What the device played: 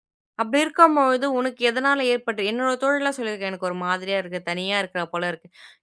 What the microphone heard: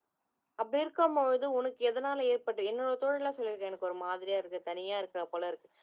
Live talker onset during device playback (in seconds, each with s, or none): none